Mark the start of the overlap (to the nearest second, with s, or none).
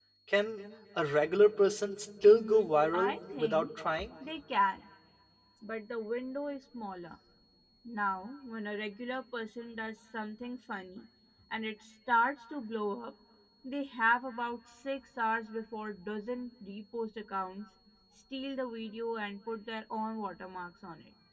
2 s